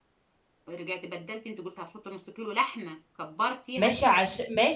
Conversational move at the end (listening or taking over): taking over